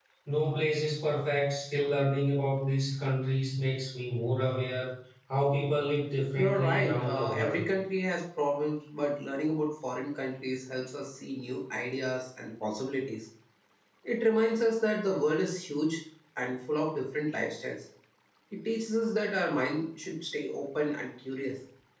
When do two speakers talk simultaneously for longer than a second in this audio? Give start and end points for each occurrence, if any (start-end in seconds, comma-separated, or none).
6.3-7.6